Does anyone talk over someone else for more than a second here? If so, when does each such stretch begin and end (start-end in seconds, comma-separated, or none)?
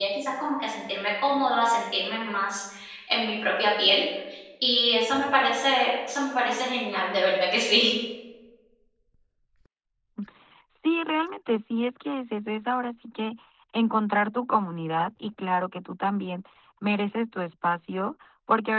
none